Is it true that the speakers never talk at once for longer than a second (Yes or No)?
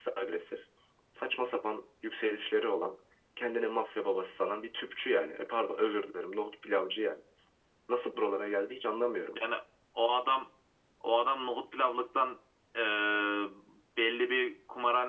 Yes